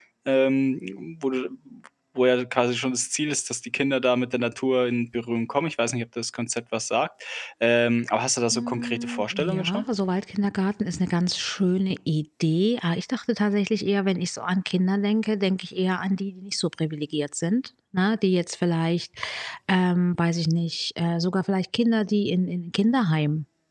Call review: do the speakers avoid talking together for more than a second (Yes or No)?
No